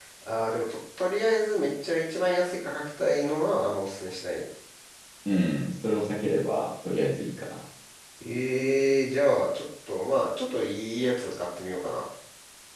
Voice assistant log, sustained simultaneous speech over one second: none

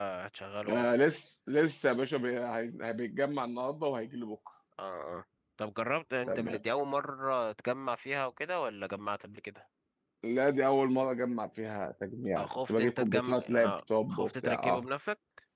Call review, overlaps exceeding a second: present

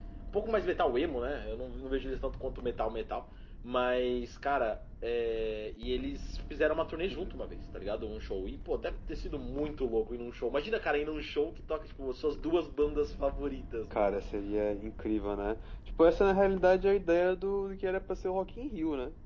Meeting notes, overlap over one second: none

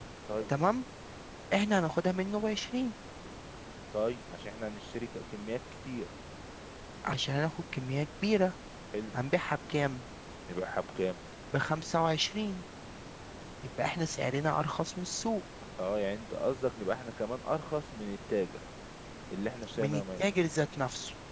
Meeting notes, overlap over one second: none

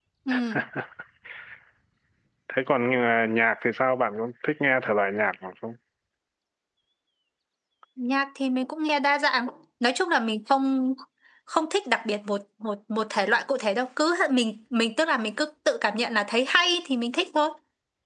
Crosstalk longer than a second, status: none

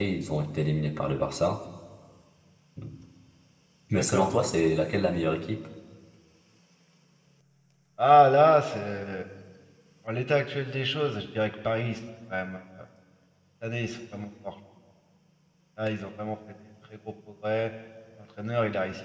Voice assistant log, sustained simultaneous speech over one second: none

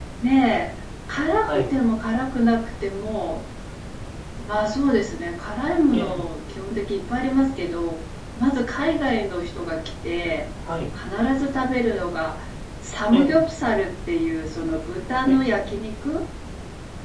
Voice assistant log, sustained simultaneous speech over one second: none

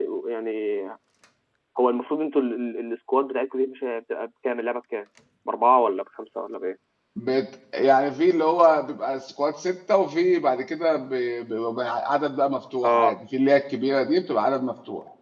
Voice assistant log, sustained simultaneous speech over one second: none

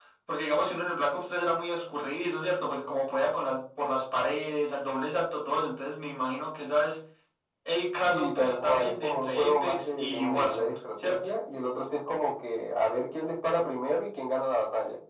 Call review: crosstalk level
present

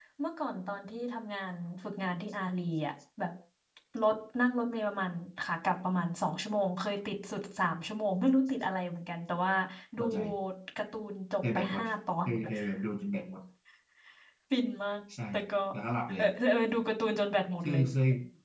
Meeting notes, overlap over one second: none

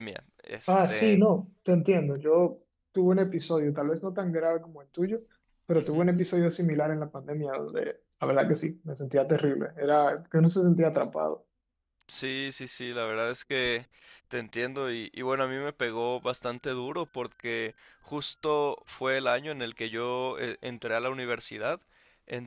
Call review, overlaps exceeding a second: none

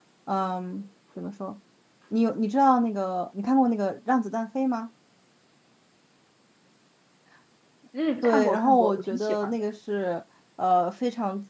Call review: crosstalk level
present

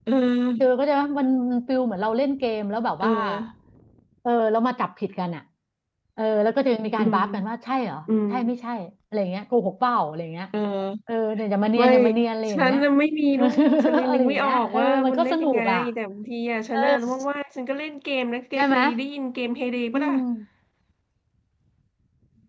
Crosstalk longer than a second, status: present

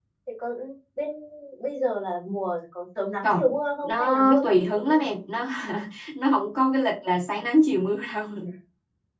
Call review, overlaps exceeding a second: present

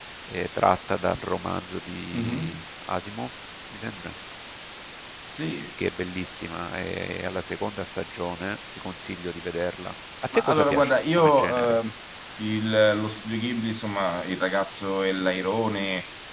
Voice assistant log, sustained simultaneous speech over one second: present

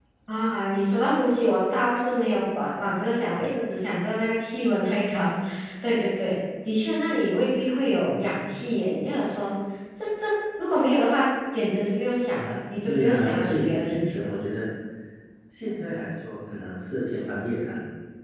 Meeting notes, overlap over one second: present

